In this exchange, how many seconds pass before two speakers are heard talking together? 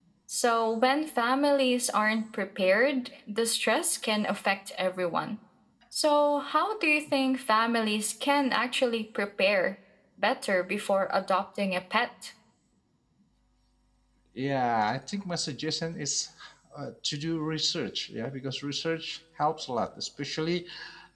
none

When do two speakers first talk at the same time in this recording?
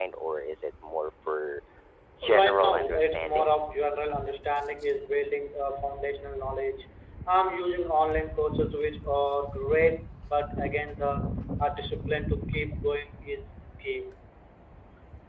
2.2 s

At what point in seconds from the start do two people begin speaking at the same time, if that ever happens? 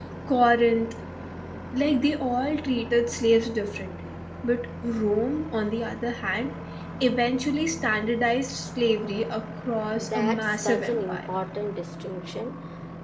9.9 s

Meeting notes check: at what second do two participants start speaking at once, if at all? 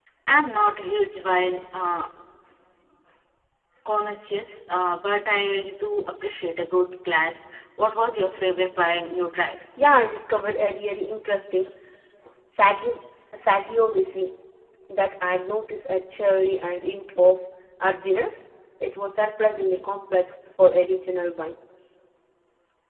none

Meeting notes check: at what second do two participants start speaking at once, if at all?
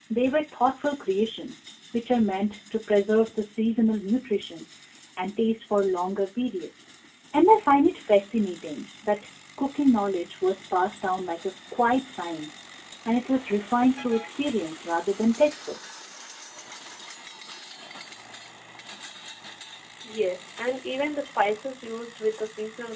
none

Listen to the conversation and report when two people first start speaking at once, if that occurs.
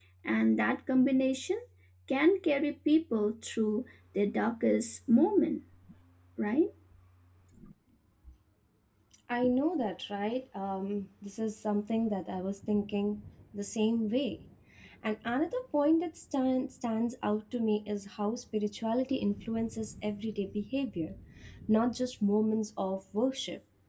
none

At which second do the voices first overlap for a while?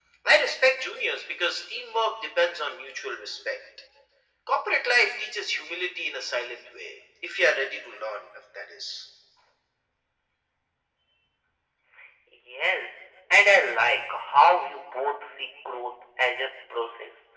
none

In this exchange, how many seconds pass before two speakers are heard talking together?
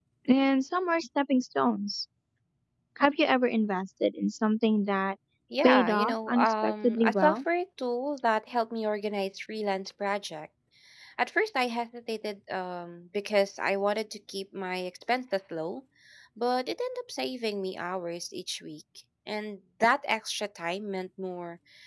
5.6 s

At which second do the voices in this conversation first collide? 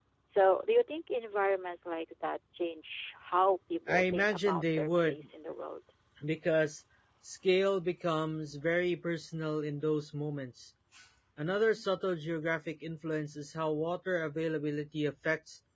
3.9 s

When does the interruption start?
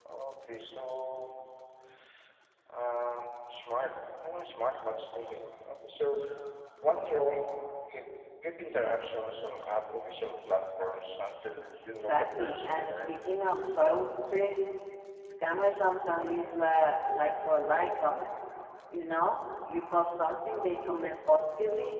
11.9 s

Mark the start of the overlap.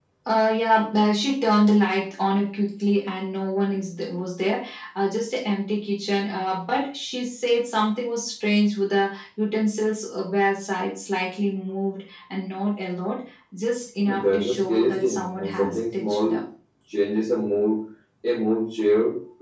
14.0 s

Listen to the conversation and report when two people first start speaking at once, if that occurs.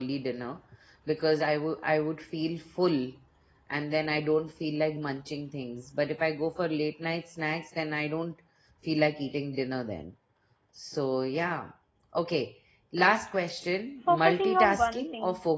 14.1 s

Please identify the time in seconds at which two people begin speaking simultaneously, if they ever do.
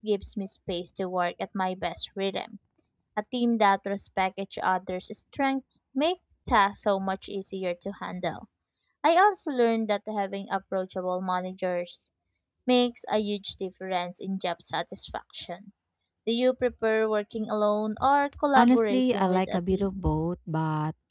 18.6 s

